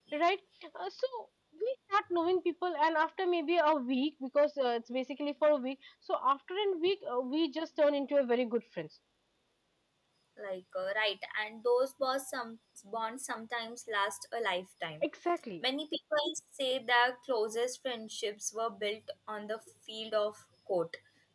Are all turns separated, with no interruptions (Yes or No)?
Yes